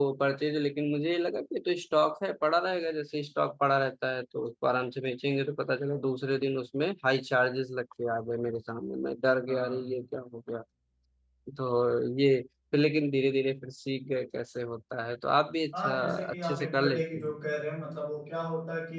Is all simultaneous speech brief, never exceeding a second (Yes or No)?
No